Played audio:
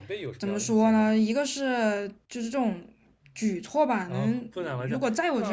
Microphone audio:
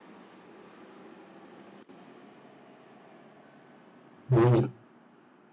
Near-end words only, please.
嗯

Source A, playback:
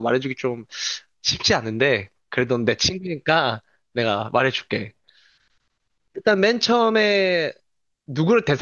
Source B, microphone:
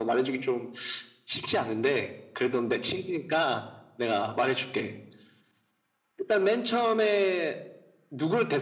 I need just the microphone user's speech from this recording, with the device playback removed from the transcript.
none

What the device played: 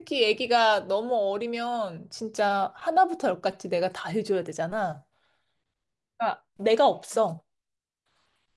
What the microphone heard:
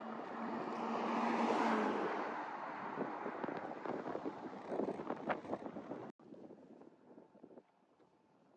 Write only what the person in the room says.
none

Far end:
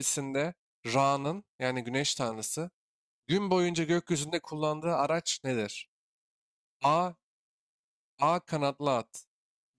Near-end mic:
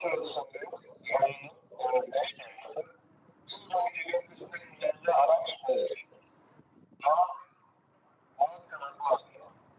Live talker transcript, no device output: none

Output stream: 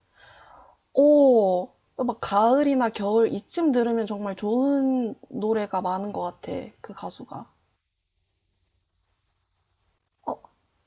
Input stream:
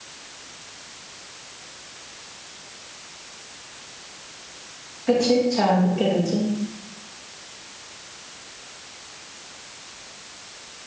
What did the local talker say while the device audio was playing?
그치? 잘 안 듣게 되지.

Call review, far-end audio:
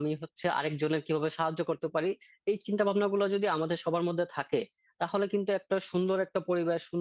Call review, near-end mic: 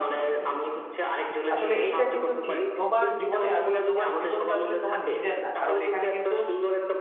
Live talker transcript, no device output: আসলে এইটা কিন্তু ঠিক তোমার জীবনে আসলে তোমার জীবন তো আসলে তোমার নিজের না কারণ এখানে কিন্তু

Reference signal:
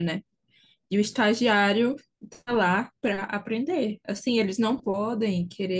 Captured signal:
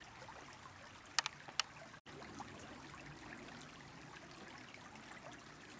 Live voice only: none

